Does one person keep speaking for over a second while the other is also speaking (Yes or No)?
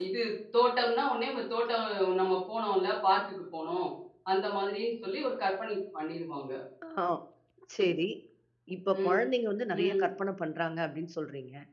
No